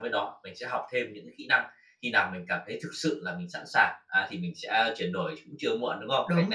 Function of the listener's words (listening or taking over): taking over